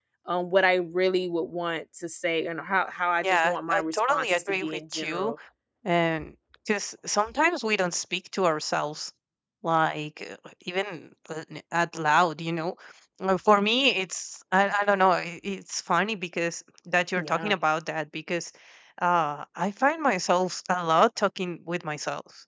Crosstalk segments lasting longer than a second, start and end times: 3.2-5.3

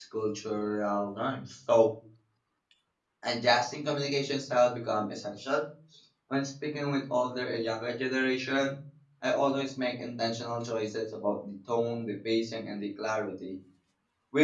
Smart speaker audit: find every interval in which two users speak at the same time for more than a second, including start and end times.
none

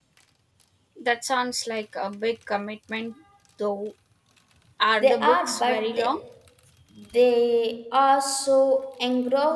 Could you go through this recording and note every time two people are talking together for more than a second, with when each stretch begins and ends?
5.0-6.2

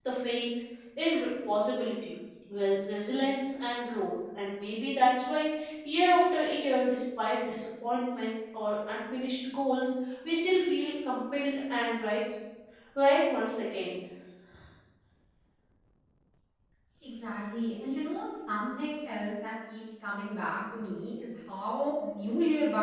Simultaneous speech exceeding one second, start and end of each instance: none

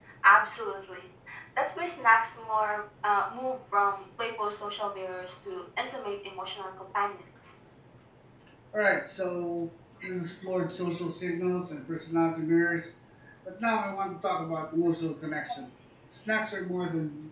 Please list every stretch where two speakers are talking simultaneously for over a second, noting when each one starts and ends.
none

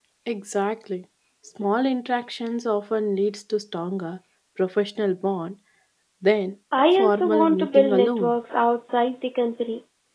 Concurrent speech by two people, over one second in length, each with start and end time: 7.0-8.3

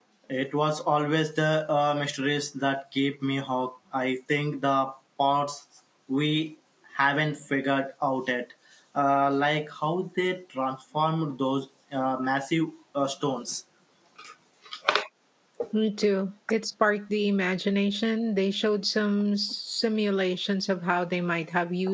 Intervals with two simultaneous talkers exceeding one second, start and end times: none

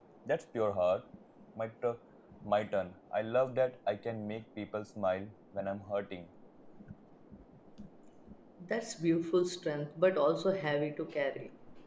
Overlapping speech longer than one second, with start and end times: none

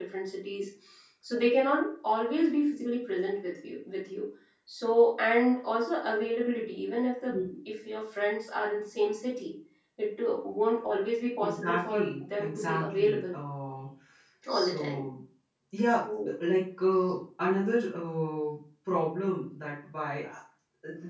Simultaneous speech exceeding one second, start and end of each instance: 11.4-13.3

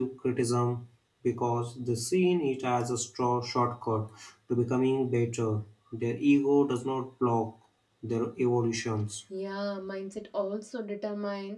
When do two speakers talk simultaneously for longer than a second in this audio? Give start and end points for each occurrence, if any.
none

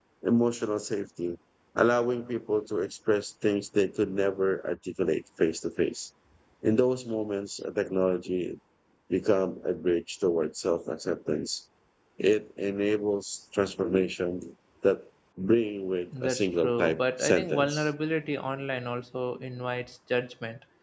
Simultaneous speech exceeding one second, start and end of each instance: 16.2-17.9

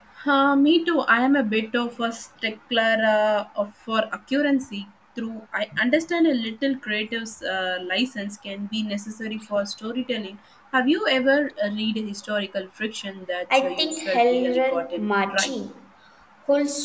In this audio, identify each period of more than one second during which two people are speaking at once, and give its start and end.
13.5-15.5

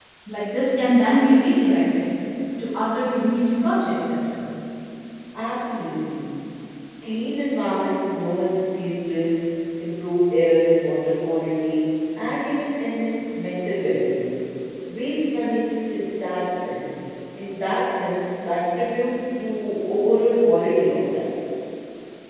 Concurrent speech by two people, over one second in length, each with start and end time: none

